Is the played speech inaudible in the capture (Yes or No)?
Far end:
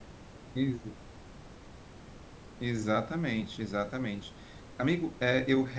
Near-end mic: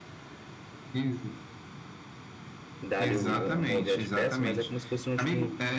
No